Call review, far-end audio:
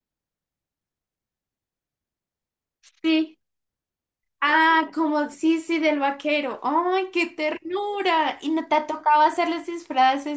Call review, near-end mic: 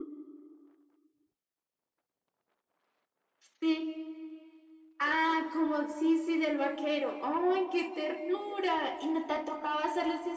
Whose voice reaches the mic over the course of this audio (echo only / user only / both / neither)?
echo only